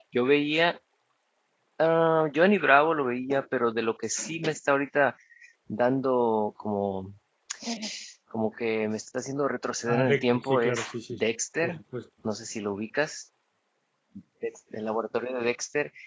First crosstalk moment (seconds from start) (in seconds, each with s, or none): 9.8 s